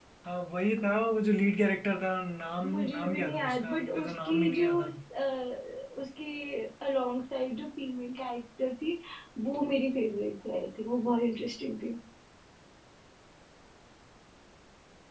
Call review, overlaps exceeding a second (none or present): present